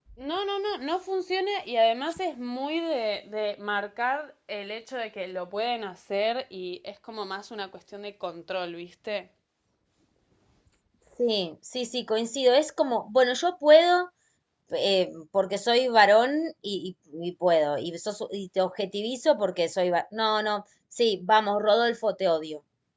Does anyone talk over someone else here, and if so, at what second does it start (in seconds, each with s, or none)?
none